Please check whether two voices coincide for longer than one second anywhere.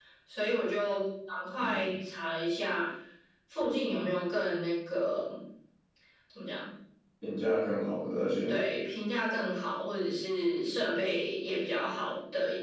No

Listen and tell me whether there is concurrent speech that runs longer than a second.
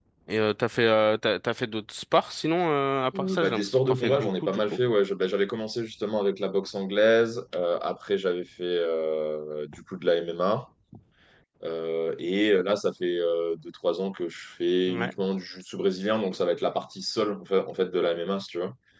Yes, from 3.1 s

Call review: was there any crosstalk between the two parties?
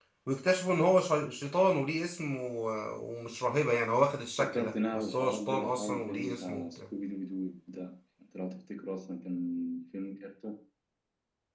Yes, from 4.4 s

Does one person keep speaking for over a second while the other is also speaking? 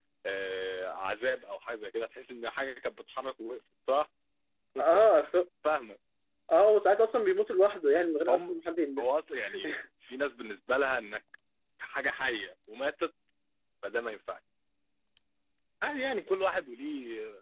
No

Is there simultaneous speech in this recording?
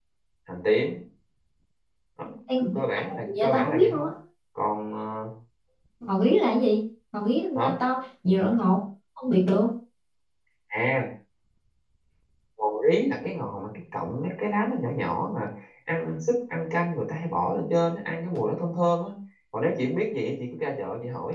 Yes, from 2.8 s

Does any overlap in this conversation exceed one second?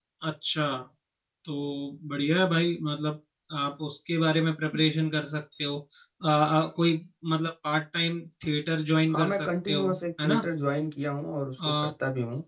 Yes, from 9.1 s

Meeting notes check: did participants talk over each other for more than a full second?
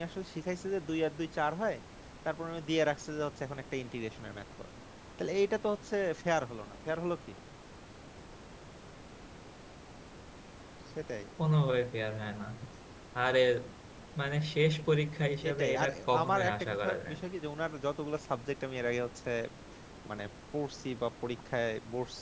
Yes, from 15.4 s

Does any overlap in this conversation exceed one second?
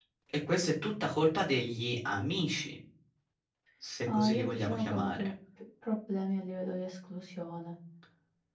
Yes, from 4.0 s

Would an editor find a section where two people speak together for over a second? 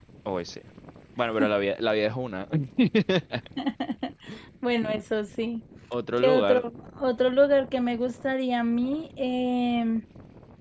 No

